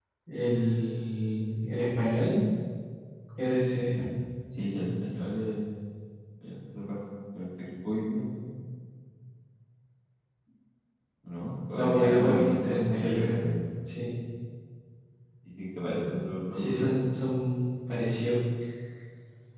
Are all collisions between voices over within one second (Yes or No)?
No